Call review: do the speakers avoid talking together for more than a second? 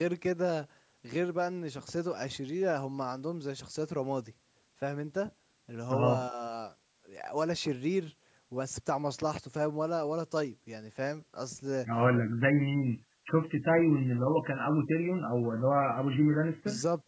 Yes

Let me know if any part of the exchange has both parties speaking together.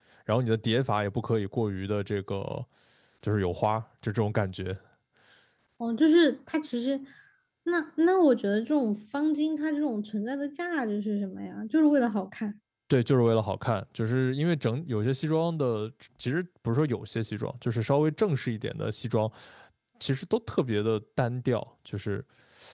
No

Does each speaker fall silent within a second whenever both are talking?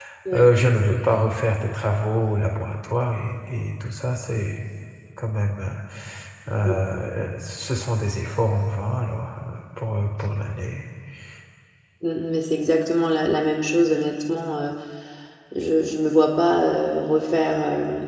Yes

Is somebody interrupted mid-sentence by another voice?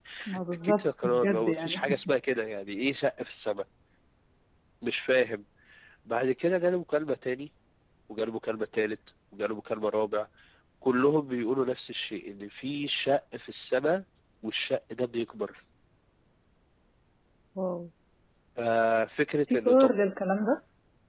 Yes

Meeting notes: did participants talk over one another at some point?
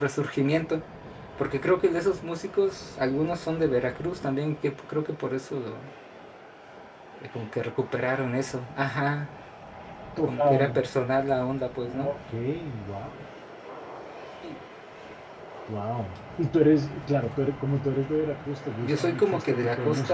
Yes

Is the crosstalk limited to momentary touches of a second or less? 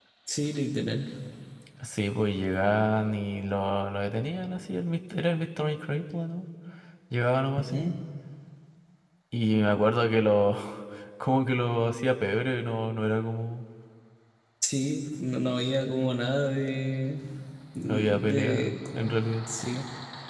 No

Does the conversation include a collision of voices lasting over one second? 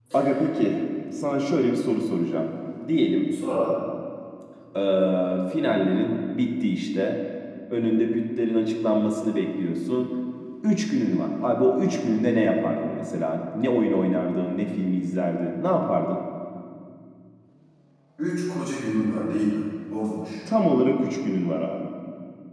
No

